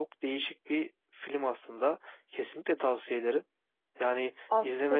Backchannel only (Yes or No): No